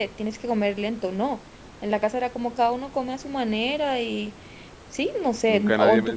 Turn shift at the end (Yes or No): Yes